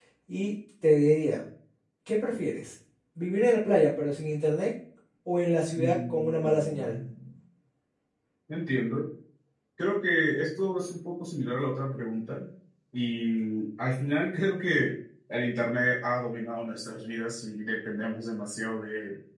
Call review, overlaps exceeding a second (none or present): present